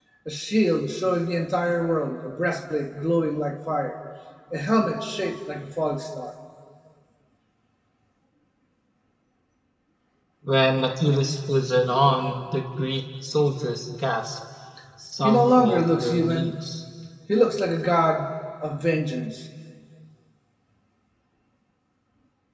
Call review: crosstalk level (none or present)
present